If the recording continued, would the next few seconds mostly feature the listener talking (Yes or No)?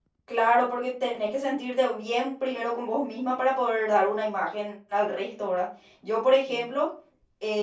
No